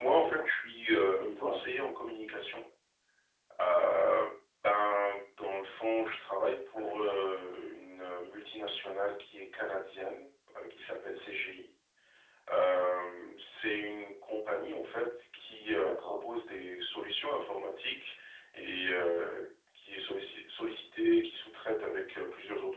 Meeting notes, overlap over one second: none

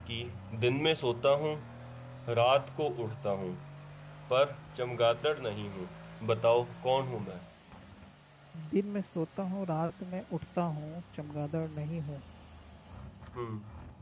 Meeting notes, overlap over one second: none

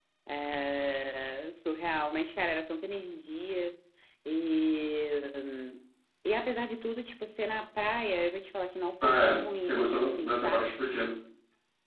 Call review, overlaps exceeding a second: present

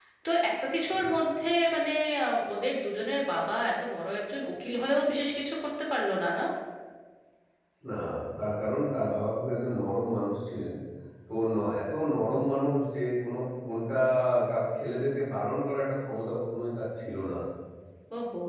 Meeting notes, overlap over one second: none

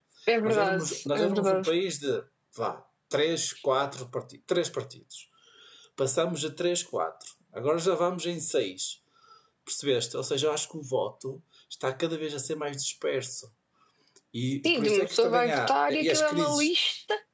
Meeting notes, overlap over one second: present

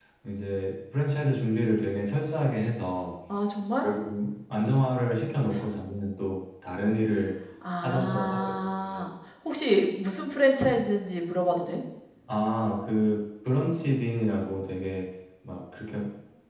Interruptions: present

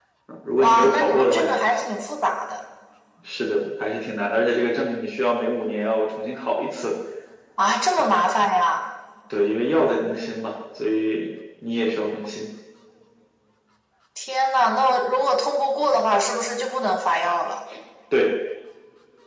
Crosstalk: present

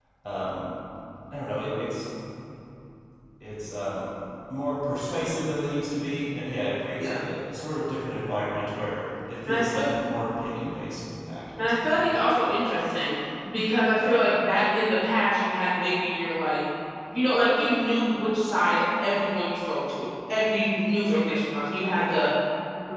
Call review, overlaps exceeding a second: none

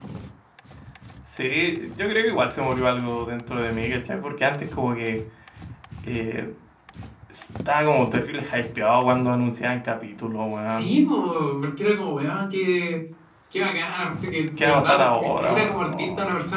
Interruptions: present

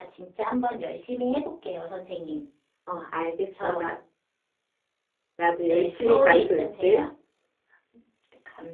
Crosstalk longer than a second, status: present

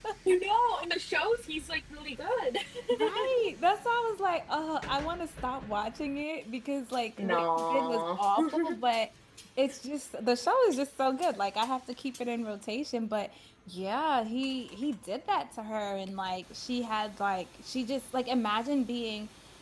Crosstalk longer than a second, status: present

